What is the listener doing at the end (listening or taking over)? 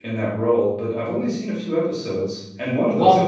listening